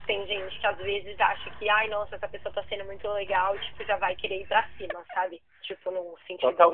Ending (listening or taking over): taking over